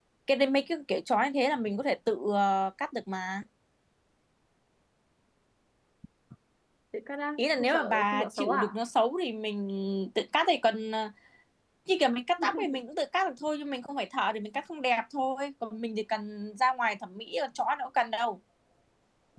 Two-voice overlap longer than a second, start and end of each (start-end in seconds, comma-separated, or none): 7.4-8.8